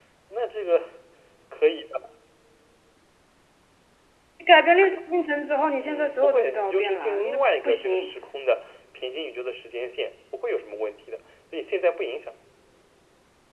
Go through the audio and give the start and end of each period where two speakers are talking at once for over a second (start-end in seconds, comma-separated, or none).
5.8-8.1